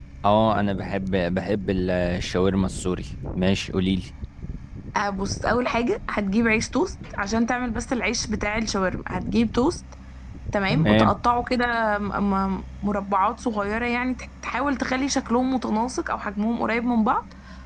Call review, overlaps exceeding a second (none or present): none